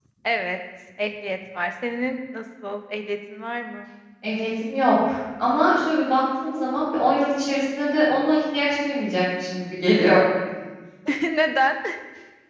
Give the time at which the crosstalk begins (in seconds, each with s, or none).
none